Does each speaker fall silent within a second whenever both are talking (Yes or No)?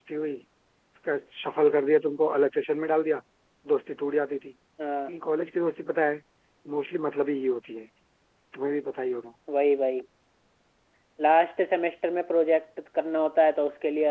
Yes